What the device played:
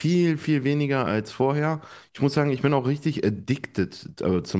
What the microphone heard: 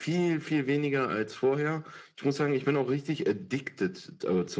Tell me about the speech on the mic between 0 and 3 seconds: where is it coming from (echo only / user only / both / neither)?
echo only